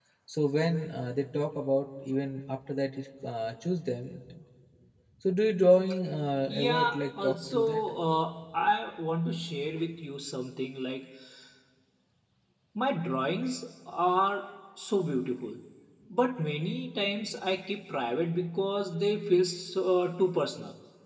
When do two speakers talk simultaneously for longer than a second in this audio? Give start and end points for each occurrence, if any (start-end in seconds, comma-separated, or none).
6.5-7.9